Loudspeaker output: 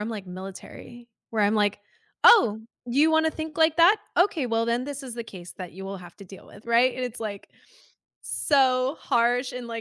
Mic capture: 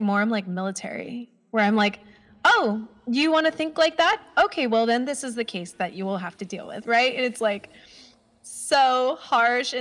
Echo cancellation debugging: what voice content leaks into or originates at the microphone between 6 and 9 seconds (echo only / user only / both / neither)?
echo only